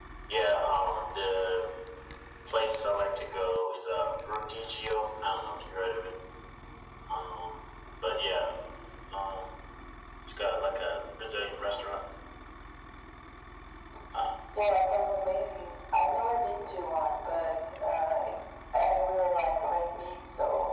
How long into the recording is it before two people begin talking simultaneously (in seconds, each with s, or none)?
none